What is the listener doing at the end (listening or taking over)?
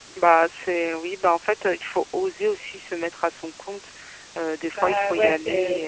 taking over